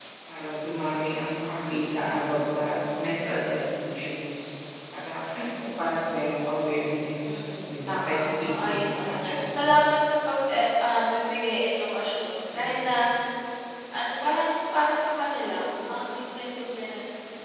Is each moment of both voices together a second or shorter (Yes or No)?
No